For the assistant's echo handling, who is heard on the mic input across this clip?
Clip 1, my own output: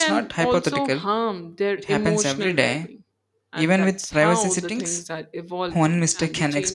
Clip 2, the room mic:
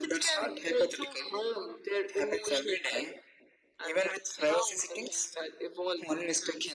echo only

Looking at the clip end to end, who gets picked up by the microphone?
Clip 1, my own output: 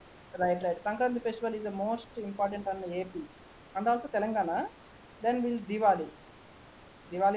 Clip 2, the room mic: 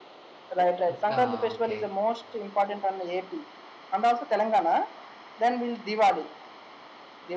both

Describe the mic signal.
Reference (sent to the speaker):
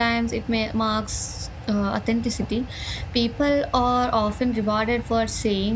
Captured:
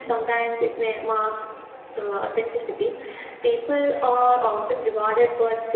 echo only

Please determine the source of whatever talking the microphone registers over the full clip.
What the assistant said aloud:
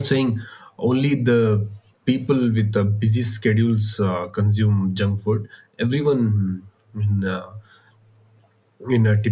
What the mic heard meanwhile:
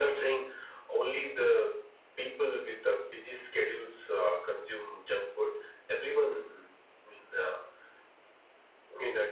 echo only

